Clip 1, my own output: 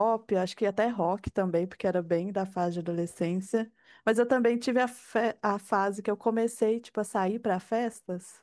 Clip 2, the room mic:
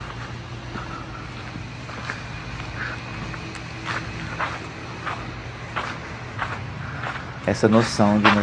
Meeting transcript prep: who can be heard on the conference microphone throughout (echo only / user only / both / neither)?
user only